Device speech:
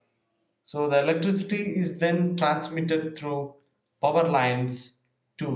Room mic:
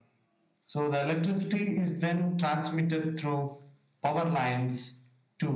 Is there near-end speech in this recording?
No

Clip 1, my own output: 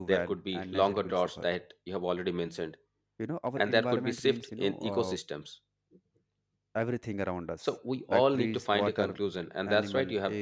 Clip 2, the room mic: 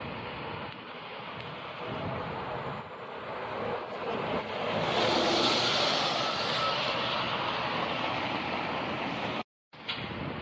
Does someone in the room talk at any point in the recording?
No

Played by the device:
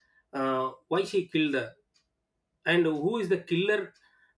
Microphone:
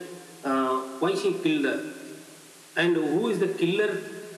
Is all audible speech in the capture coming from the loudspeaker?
Yes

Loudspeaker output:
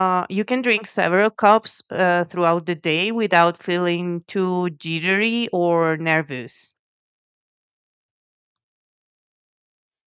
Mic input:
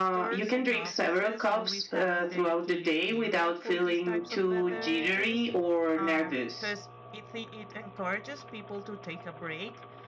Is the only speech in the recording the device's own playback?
No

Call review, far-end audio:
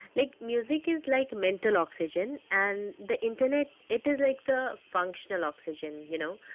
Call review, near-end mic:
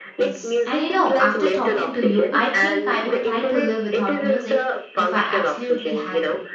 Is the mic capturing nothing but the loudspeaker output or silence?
No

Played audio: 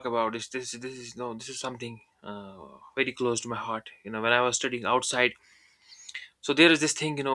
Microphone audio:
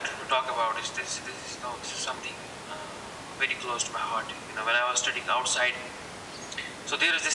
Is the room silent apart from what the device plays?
Yes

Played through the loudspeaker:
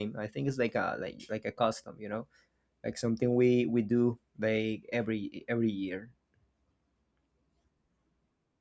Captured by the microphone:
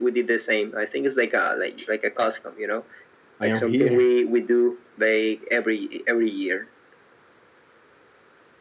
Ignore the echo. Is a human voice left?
Yes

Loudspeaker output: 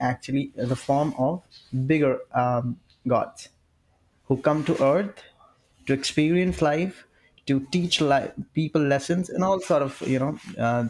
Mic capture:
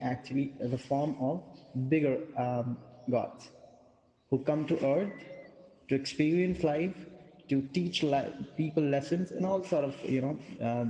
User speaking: No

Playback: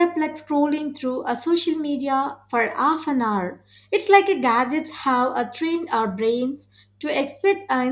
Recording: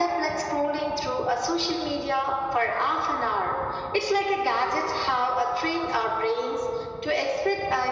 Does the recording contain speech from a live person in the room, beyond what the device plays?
No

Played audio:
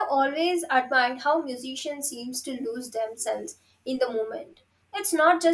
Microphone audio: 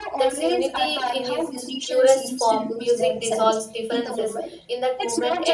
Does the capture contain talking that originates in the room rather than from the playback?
Yes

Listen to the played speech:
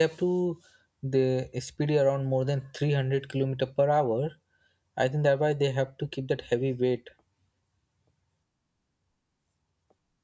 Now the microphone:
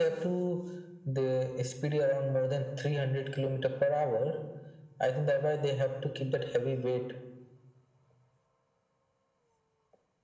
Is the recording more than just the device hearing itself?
No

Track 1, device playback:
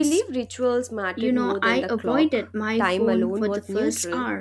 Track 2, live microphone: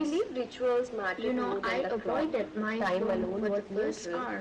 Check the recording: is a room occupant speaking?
No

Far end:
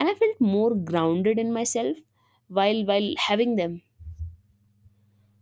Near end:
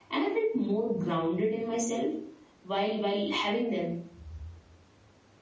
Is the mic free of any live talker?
Yes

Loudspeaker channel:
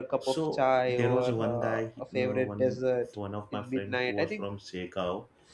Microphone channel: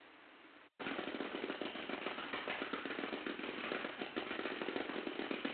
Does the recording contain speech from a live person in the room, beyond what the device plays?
No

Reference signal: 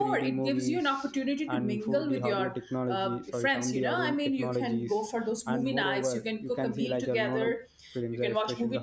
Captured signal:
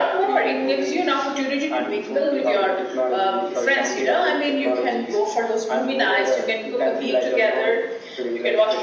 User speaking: No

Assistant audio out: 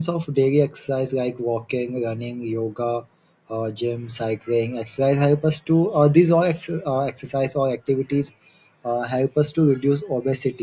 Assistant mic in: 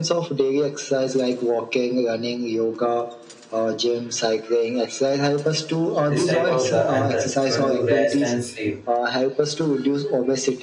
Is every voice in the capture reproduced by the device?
No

